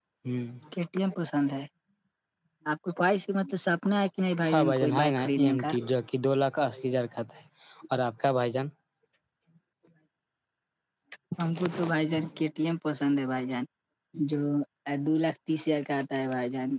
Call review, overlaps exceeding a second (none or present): present